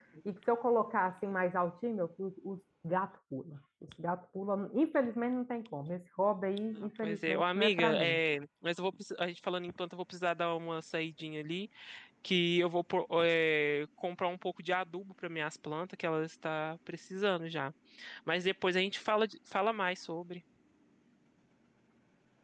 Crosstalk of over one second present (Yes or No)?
Yes